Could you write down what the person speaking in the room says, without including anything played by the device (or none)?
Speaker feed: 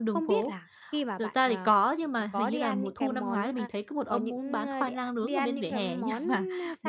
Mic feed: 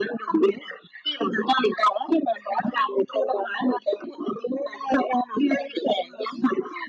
none